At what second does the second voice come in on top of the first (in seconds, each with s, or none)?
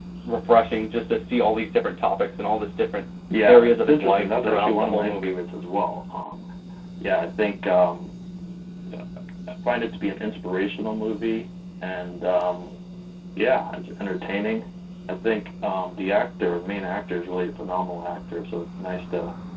3.3 s